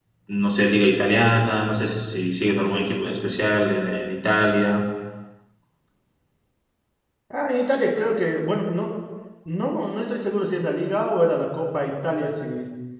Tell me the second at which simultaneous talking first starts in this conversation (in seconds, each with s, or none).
none